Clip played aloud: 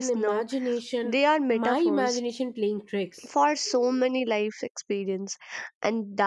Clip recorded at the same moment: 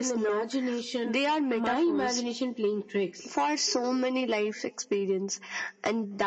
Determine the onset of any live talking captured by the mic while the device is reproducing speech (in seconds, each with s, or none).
none